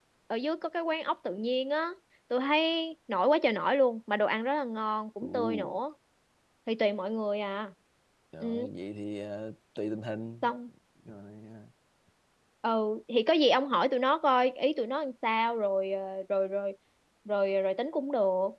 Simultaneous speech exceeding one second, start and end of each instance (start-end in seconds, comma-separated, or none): none